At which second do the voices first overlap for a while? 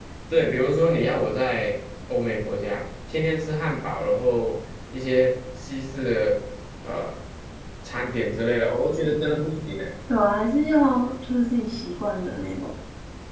none

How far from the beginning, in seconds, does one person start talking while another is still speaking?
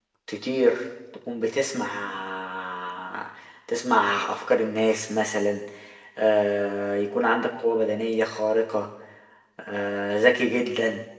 none

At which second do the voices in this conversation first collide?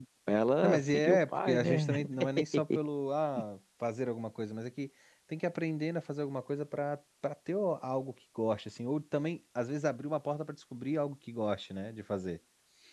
1 s

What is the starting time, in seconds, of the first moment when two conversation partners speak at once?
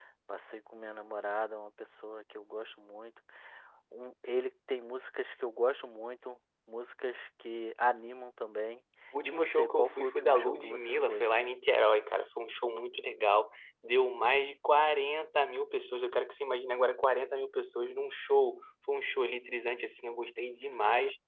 9 s

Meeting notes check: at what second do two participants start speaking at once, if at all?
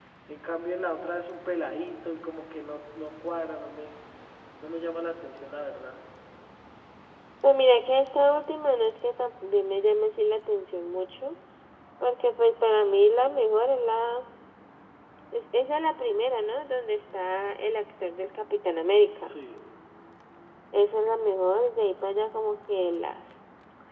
none

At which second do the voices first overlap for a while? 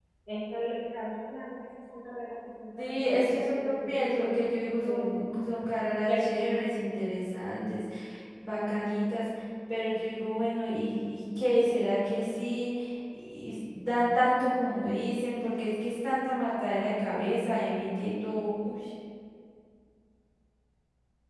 3 s

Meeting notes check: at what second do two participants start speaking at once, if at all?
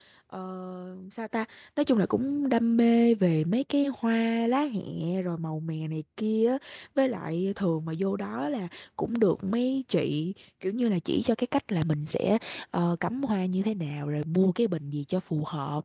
none

